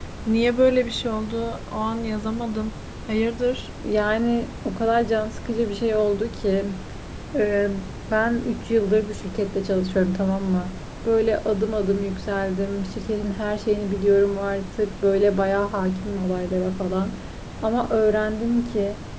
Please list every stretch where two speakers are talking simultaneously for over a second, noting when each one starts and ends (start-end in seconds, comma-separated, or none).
none